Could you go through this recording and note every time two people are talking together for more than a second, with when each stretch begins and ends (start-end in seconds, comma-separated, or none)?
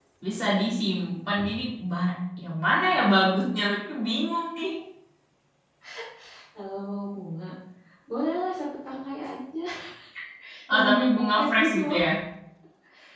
10.7-12.0